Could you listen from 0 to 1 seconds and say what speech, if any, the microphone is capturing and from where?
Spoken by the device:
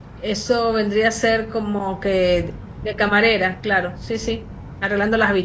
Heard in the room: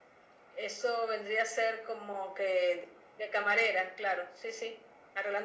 echo only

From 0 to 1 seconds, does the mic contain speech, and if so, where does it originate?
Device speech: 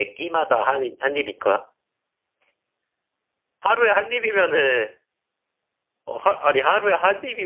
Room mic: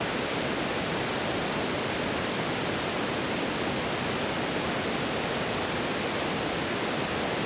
neither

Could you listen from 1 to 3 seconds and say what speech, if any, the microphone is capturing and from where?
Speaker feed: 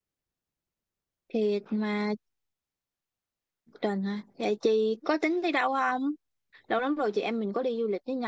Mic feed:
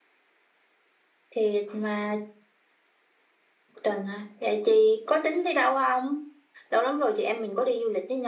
echo only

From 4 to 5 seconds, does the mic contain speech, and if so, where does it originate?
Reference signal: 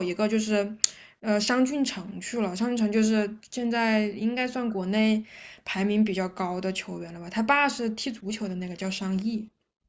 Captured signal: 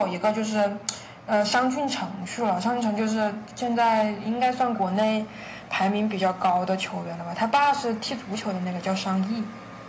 echo only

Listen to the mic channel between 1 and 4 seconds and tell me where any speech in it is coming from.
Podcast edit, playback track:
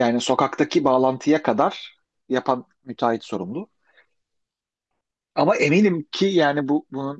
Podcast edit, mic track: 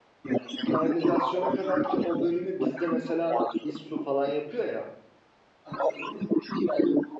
both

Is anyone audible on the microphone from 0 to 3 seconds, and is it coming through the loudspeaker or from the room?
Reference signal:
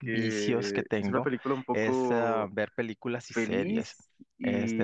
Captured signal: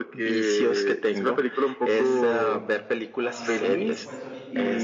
both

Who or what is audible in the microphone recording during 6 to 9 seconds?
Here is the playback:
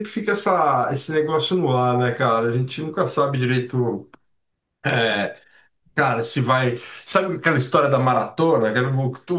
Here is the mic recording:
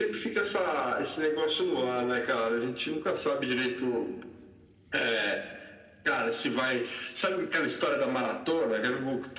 echo only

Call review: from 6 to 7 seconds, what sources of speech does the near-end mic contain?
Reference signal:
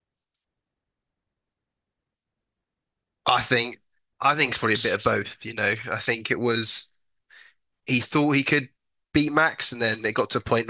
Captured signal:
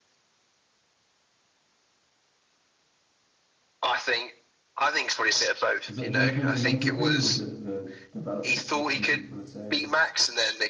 both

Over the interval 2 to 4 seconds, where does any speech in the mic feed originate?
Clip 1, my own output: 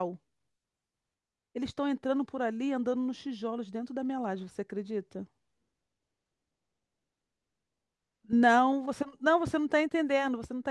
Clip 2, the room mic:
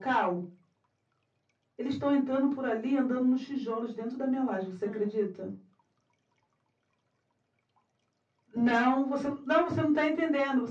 echo only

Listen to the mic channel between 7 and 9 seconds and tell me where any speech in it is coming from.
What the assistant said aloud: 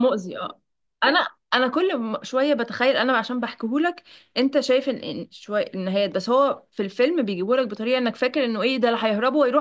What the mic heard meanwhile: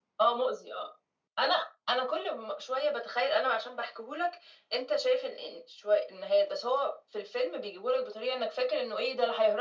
echo only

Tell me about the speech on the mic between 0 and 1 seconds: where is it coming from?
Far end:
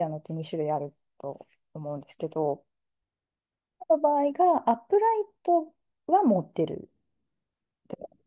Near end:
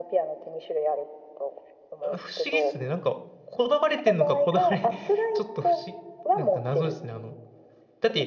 echo only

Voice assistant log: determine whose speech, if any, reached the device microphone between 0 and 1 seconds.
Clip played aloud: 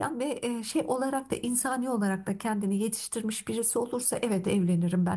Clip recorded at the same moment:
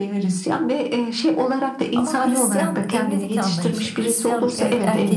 echo only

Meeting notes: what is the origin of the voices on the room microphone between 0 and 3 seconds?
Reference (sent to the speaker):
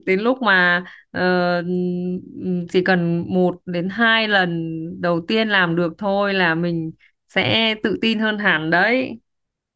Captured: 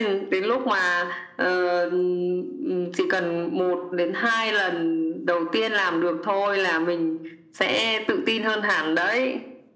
echo only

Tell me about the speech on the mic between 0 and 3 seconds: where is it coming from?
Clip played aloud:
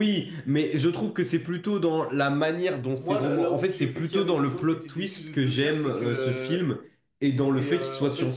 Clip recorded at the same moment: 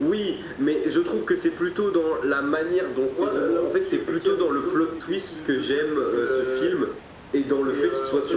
echo only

